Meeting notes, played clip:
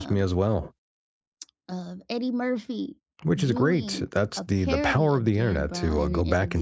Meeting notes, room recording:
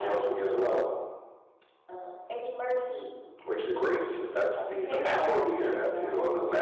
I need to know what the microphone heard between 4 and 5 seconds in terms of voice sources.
echo only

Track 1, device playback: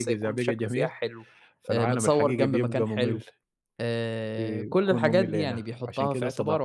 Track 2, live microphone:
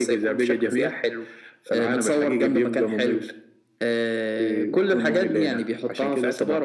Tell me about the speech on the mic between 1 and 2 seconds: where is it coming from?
echo only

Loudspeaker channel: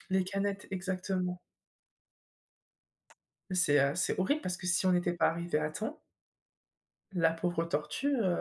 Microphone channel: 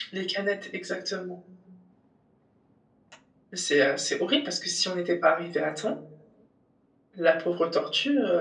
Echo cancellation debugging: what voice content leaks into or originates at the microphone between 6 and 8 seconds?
echo only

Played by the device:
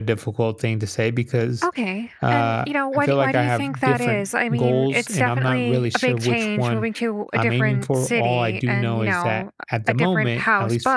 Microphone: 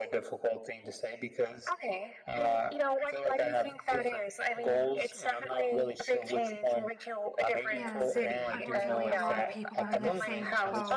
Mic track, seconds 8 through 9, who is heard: both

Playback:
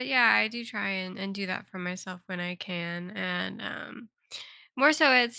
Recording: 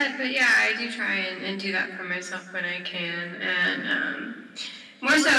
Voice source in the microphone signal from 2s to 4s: echo only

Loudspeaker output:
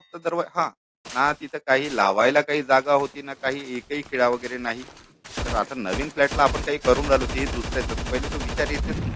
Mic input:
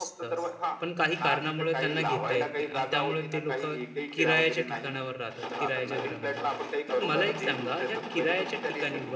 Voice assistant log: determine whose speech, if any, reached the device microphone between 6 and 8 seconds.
both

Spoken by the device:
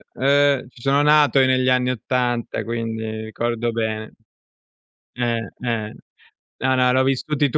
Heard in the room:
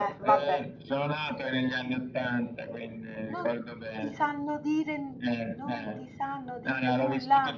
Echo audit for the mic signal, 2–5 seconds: both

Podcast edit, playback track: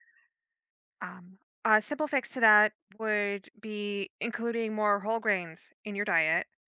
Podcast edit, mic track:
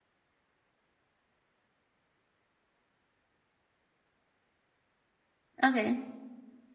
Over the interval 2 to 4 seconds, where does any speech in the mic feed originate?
neither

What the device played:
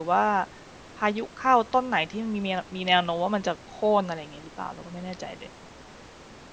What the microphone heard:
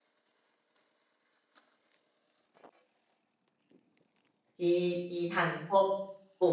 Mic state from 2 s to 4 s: neither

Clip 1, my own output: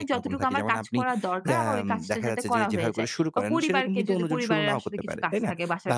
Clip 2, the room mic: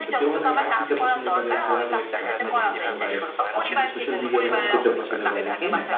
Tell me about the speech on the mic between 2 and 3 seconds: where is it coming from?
both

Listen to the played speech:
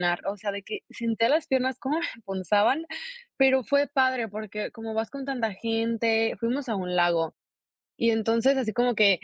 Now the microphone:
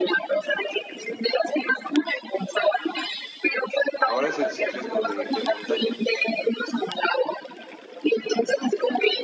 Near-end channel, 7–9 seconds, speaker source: echo only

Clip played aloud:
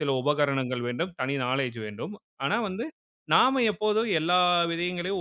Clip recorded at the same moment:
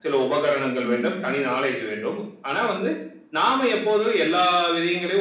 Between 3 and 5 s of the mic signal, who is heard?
echo only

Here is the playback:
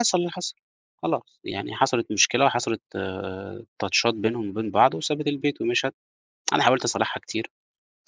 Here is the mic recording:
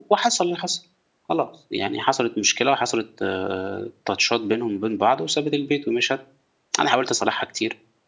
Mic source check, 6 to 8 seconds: echo only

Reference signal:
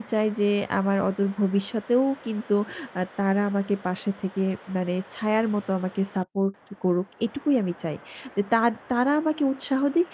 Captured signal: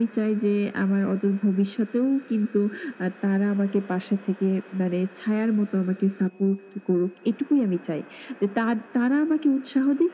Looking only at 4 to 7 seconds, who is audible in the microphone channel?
echo only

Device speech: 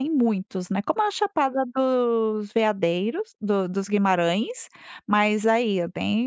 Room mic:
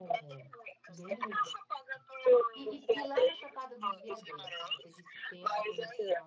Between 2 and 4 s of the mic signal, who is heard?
both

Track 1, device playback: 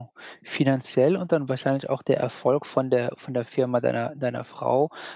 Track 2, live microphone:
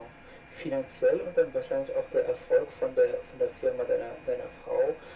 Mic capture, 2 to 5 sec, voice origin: echo only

